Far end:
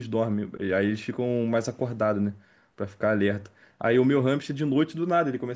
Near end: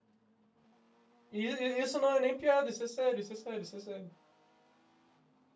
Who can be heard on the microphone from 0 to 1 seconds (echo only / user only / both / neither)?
neither